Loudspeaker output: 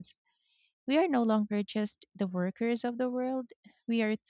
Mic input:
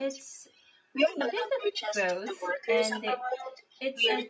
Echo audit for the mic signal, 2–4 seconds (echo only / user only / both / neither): both